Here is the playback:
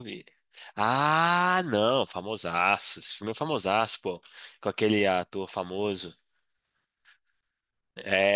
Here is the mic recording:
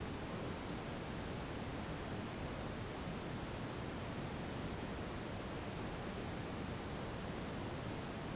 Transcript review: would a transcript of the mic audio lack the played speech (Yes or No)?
Yes